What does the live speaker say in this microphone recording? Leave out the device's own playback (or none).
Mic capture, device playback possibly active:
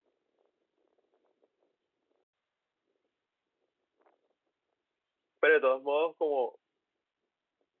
pero de todos modos como